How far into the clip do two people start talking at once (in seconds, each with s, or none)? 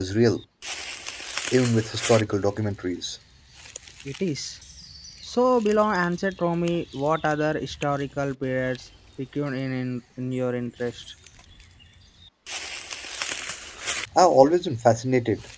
none